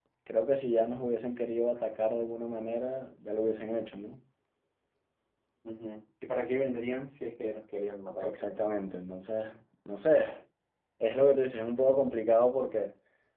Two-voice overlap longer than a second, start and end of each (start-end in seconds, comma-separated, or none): none